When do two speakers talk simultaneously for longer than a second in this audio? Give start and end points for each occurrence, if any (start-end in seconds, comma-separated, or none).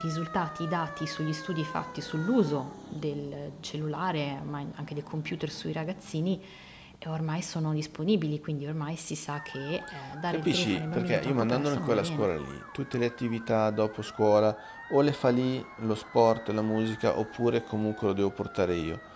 10.3-12.3